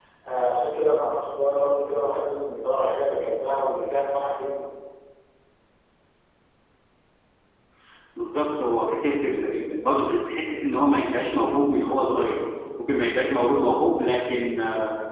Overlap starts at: none

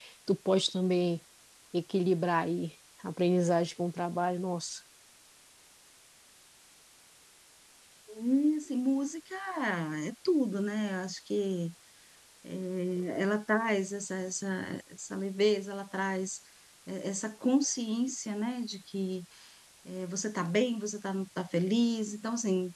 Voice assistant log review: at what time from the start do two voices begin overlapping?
none

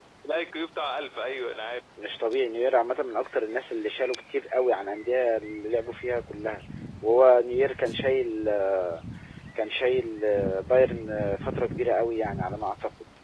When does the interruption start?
none

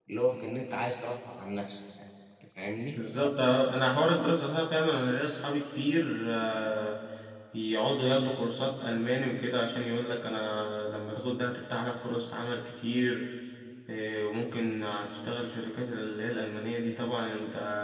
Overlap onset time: none

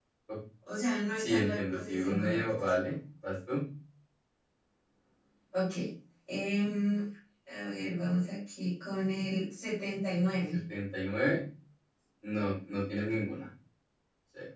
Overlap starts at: 1 s

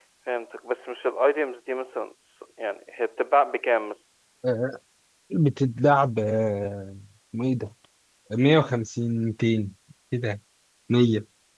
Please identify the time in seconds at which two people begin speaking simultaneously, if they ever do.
none

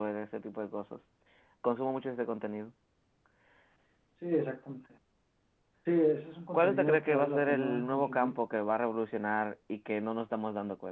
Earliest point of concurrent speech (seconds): 7 s

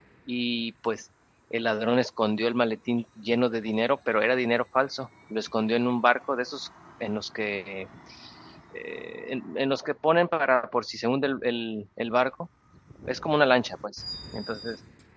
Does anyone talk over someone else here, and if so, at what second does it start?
none

